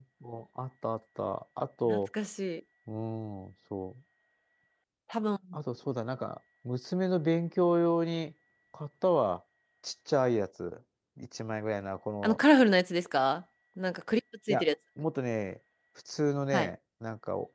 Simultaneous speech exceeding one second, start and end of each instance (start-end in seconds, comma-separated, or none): none